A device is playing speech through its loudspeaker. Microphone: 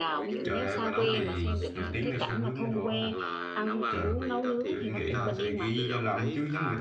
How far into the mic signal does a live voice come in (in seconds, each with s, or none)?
0.4 s